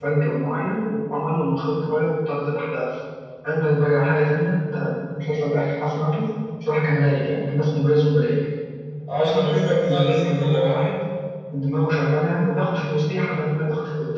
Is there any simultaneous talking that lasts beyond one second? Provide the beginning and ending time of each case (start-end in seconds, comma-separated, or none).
9.2-10.8